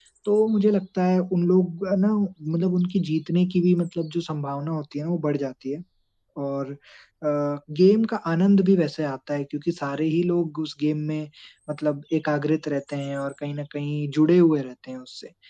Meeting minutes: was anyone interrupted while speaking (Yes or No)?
No